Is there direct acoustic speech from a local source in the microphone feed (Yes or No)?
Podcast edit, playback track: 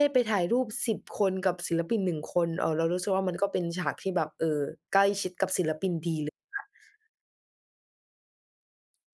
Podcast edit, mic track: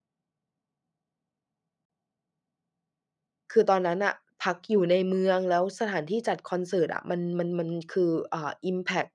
Yes